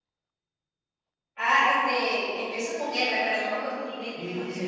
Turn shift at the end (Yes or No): Yes